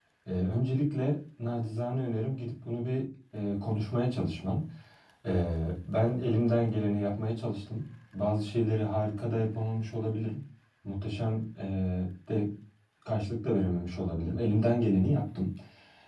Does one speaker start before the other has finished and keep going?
No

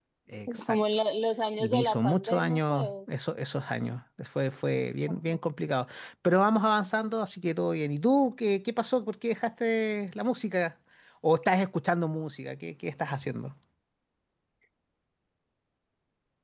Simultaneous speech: Yes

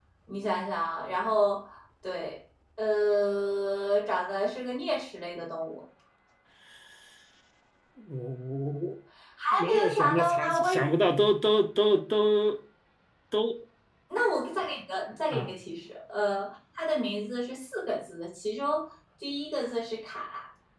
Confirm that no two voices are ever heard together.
No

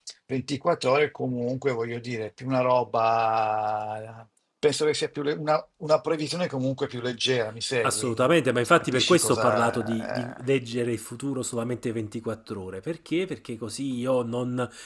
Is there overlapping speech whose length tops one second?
Yes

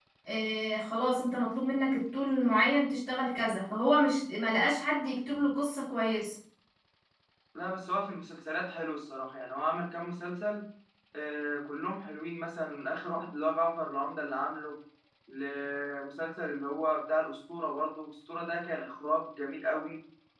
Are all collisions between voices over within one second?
Yes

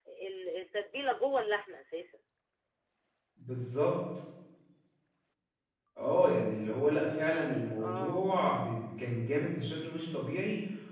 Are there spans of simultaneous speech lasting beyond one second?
No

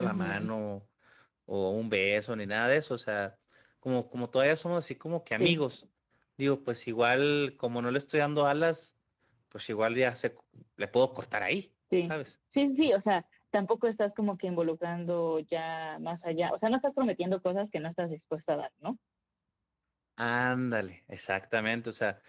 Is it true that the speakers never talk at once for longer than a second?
Yes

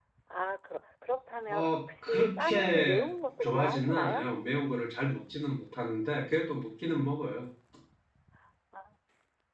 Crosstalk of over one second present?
Yes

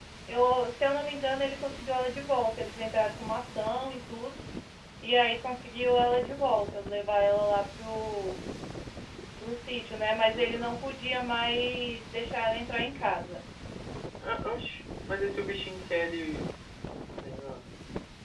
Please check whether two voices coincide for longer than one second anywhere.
No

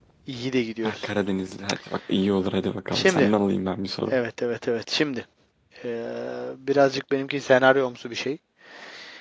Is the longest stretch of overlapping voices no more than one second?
Yes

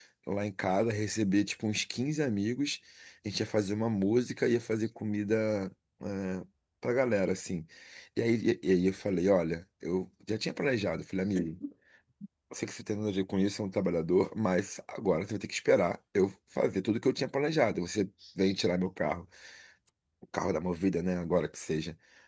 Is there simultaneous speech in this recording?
No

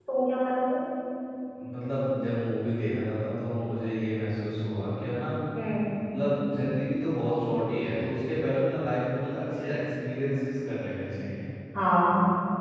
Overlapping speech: No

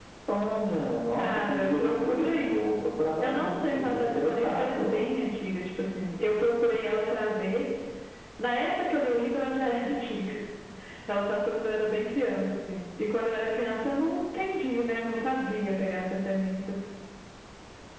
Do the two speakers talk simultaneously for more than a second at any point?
Yes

